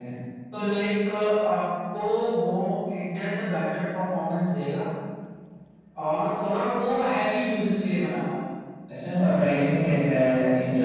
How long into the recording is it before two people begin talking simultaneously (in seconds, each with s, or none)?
none